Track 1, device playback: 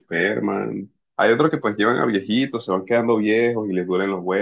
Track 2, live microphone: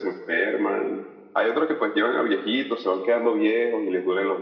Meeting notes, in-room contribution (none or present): none